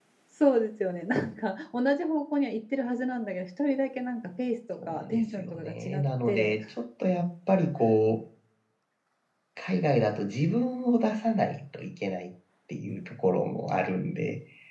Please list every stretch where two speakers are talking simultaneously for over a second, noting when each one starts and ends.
4.9-6.5

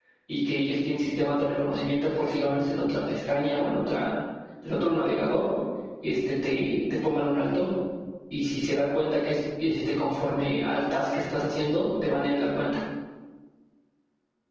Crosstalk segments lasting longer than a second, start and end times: none

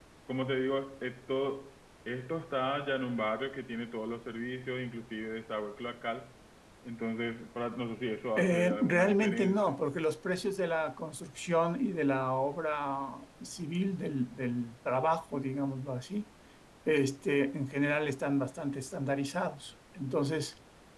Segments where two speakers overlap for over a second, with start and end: 8.4-9.8

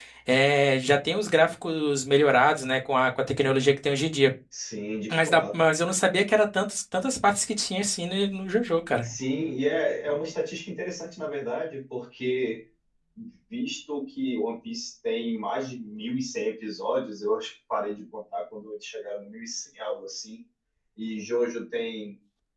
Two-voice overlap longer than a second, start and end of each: none

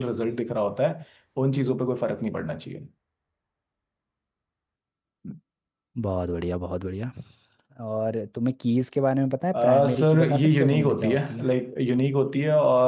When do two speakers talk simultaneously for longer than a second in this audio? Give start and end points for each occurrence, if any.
9.5-11.5

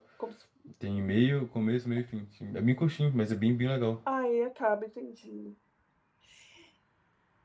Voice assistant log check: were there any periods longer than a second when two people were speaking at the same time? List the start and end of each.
none

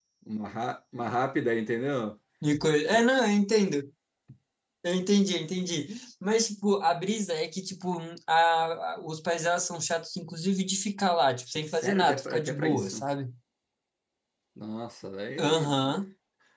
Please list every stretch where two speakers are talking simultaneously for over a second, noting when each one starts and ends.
11.6-13.0

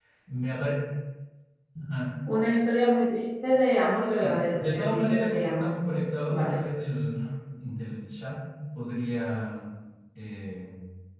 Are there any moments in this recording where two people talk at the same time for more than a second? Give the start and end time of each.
4.0-5.7

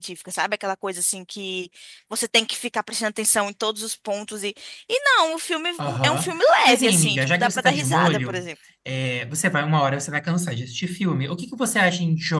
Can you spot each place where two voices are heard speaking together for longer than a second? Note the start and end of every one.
5.8-8.4

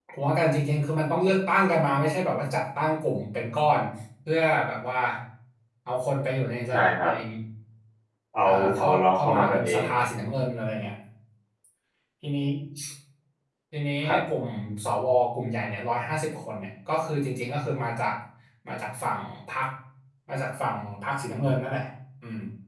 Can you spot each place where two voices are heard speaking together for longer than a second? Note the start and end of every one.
8.4-9.9

